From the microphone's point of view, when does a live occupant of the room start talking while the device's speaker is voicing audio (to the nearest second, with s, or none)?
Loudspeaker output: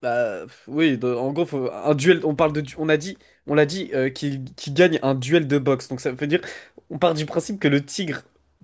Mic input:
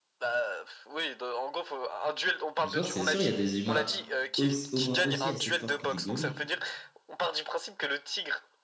3 s